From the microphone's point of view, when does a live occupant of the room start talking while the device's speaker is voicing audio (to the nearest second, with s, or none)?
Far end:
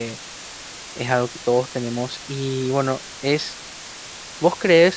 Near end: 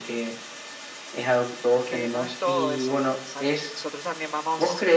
2 s